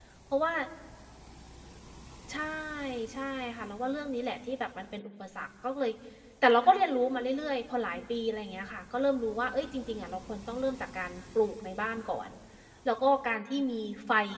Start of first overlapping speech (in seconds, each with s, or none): none